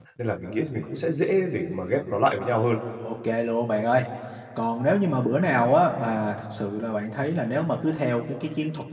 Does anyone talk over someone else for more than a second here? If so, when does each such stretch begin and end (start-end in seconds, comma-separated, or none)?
none